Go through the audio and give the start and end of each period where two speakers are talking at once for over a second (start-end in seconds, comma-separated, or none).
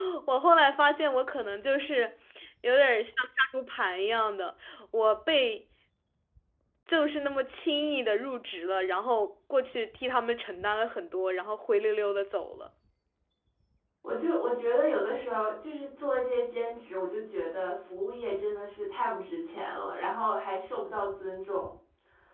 none